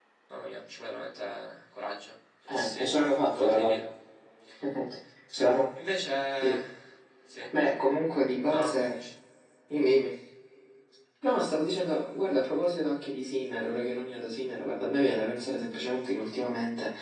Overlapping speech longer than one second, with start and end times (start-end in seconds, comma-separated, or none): none